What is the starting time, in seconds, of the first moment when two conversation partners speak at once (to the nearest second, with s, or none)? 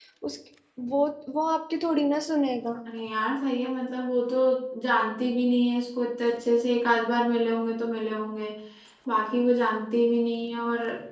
none